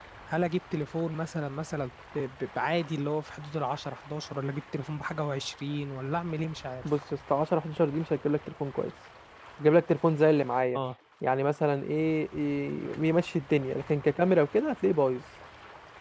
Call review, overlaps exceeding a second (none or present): none